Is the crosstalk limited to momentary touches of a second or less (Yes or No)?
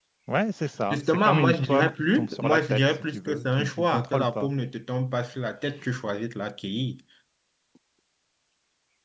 No